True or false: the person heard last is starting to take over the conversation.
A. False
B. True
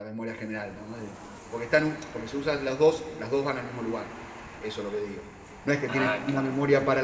A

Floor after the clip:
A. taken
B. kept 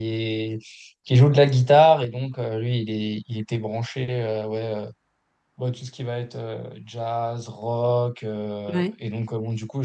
B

